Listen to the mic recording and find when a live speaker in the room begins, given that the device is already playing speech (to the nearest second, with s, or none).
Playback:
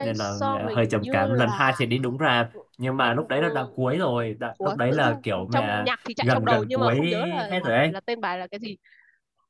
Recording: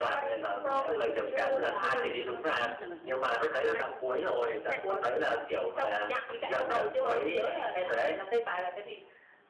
1 s